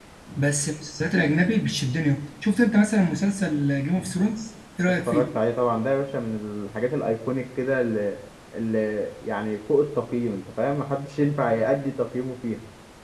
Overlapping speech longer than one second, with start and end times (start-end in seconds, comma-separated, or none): none